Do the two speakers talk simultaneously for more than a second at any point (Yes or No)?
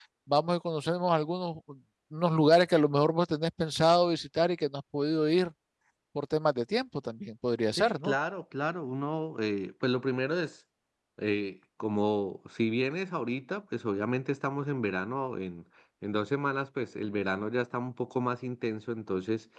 No